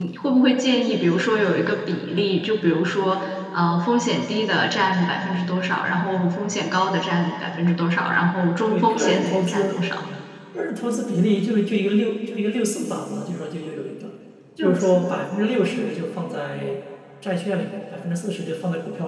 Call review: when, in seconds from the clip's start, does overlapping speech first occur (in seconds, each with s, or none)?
8.7 s